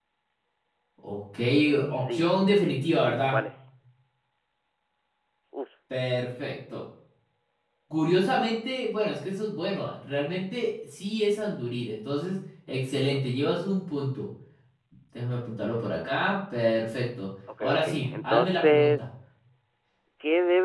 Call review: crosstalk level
present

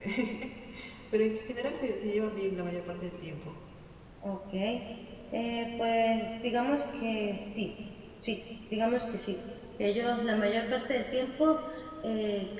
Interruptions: none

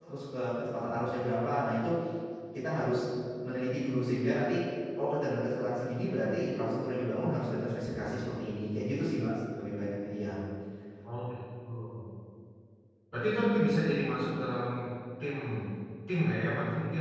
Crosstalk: none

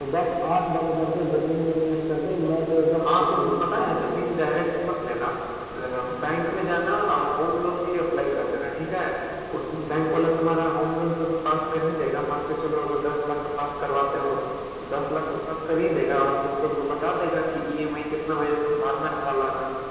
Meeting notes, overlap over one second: present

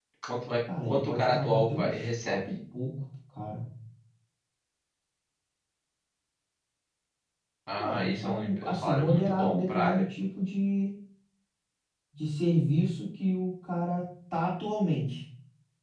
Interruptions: present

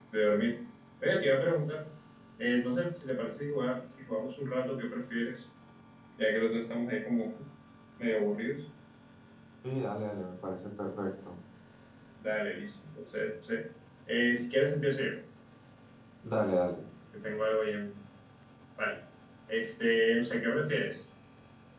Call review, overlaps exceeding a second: none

